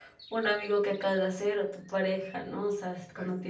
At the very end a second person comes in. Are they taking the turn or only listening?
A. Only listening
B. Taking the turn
A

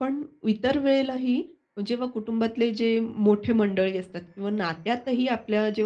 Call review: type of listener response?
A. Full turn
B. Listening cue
B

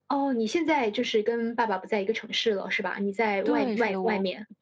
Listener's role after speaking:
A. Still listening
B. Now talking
B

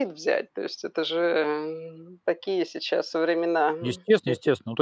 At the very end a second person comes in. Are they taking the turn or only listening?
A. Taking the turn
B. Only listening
A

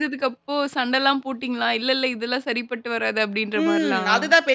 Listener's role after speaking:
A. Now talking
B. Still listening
A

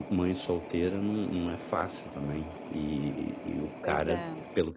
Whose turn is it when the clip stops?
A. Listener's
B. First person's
B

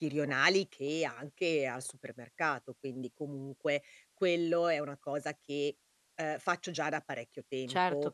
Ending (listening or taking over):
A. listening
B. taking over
B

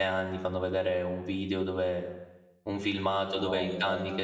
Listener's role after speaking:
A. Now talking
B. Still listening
B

